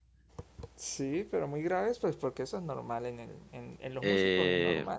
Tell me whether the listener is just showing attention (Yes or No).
No